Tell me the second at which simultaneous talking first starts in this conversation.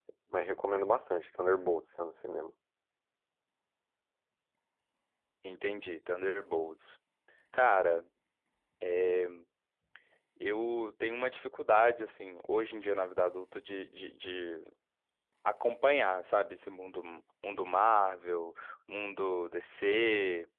none

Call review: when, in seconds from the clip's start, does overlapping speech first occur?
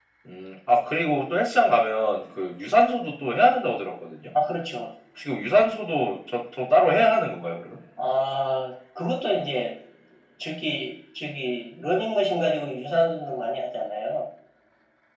none

